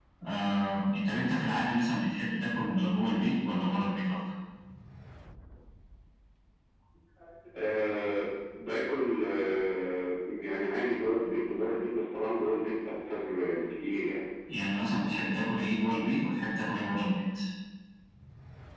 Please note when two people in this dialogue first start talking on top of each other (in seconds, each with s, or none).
none